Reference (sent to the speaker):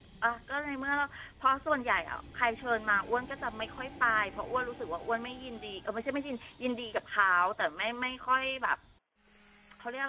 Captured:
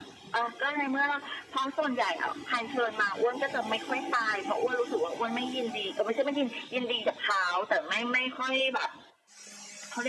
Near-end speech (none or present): none